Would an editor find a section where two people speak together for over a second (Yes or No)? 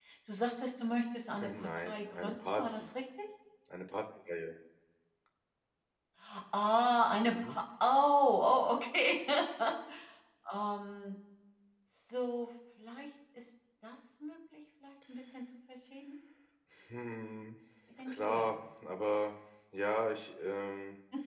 Yes